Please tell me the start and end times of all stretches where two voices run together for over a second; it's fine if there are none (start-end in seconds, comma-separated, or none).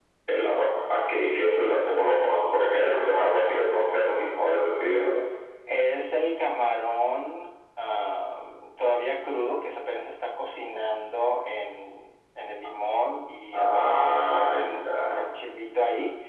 13.5-15.2